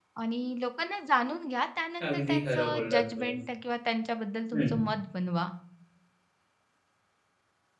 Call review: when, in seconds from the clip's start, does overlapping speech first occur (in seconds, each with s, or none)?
2.0 s